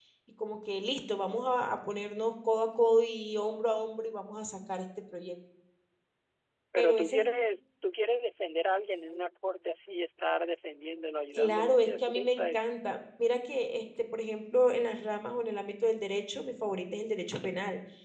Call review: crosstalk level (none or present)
present